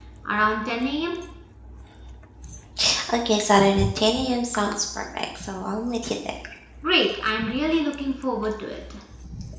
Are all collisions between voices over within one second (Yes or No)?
Yes